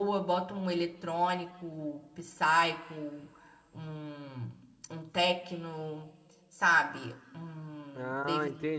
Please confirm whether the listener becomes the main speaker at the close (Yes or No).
Yes